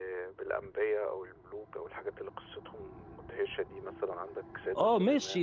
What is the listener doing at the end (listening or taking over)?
taking over